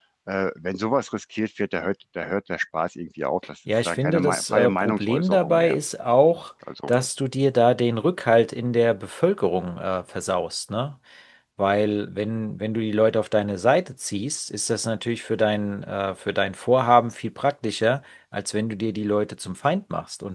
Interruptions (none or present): present